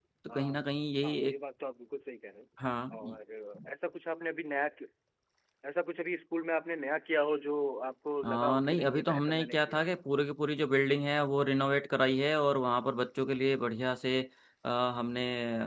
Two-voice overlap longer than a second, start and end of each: 8.2-9.9

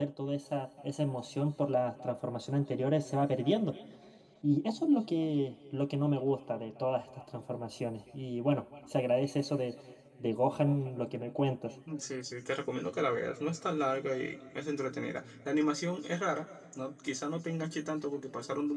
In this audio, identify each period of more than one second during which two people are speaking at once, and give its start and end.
none

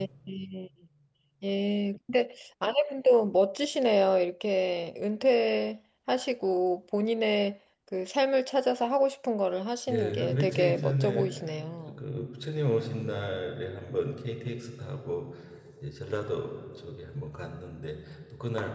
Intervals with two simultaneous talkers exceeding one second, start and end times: 9.9-11.3

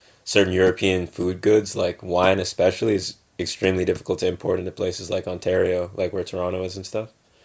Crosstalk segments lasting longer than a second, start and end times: none

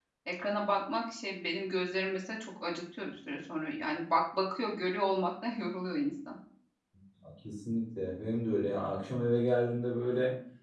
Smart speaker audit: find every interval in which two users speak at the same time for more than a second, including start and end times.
none

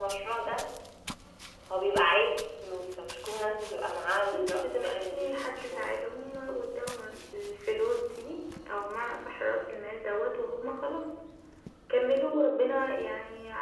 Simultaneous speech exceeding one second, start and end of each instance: 4.3-6.0

